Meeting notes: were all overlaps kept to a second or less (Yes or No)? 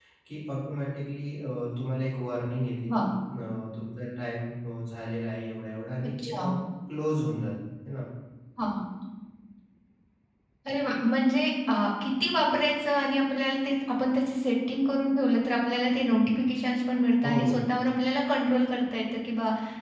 Yes